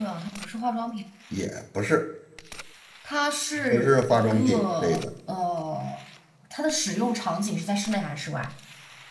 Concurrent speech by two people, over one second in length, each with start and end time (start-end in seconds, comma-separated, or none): 3.7-5.0